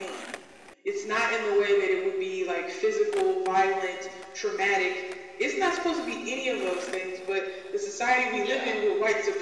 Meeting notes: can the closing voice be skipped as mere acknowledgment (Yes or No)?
Yes